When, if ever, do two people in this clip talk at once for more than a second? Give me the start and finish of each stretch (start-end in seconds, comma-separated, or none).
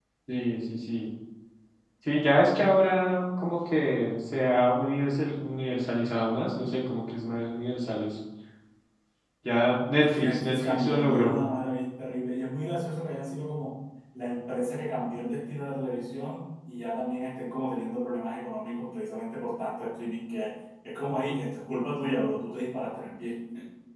10.0-11.4